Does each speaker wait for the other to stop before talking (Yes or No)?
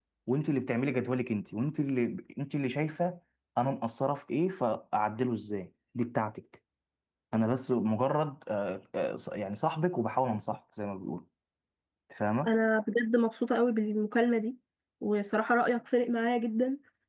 Yes